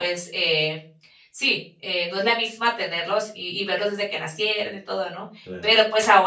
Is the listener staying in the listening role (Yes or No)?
Yes